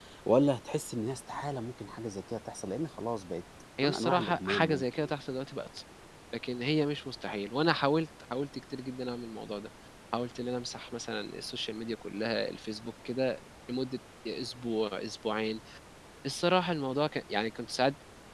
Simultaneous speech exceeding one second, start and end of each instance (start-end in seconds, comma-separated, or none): 3.8-5.1